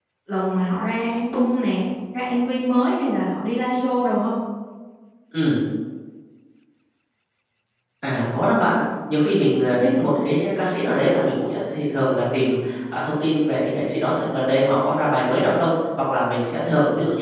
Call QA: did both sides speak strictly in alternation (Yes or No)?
Yes